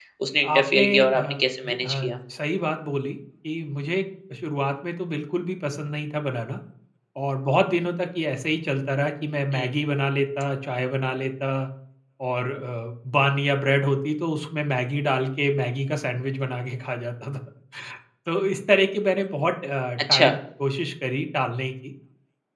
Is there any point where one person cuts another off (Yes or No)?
Yes